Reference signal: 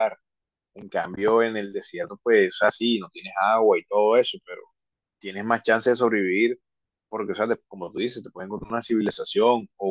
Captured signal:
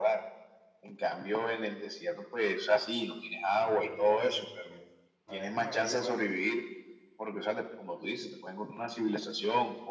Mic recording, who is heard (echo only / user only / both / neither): both